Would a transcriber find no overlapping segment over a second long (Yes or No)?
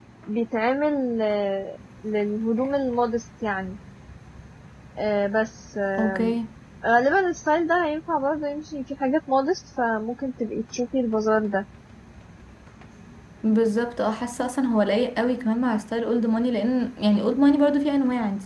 Yes